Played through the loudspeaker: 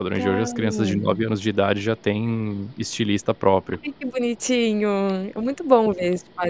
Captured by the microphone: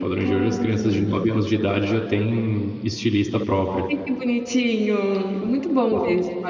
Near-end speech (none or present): none